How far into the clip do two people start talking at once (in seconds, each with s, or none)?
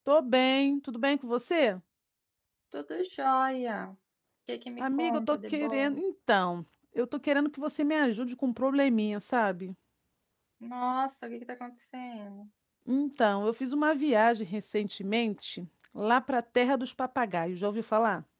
4.8 s